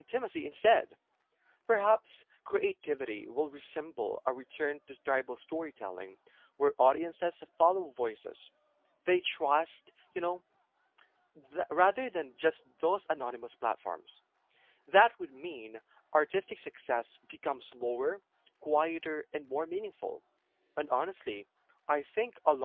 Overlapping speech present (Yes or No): No